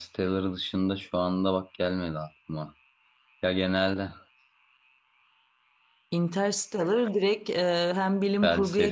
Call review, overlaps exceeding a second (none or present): none